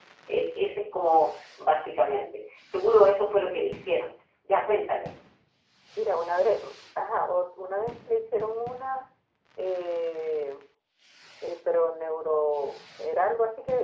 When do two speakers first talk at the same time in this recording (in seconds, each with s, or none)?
none